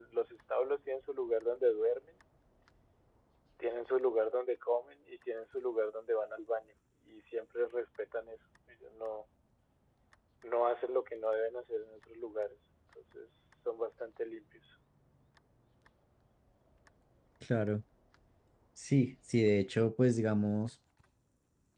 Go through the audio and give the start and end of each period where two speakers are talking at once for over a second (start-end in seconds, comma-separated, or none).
none